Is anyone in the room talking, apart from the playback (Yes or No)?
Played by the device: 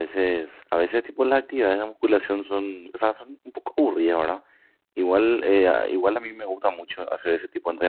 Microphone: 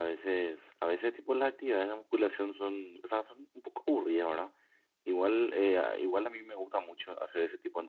No